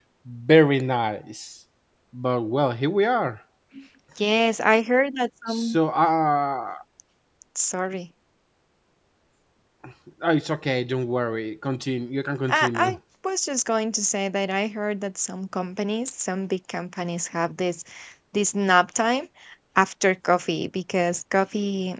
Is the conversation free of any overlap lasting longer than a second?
Yes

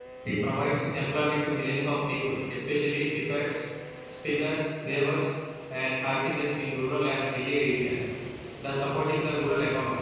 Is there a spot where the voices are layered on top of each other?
No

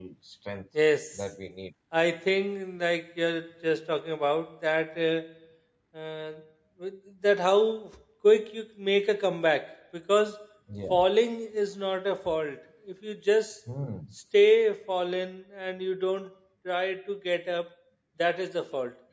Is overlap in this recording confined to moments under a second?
Yes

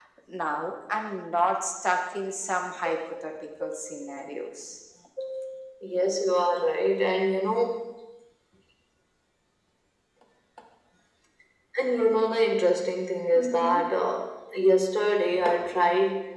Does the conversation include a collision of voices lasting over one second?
No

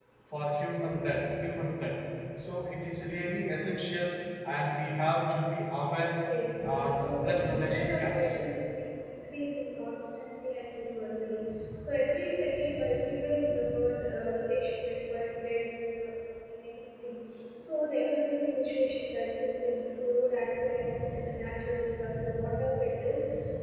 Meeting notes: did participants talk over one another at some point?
Yes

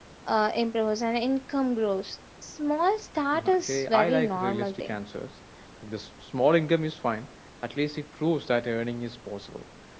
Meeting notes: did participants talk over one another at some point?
Yes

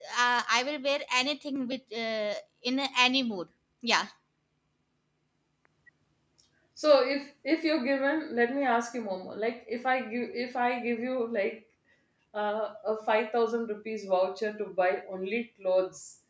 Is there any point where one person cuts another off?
No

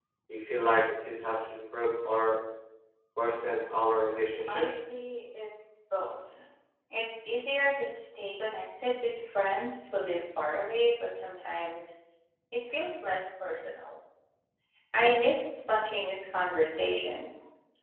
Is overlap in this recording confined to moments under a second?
Yes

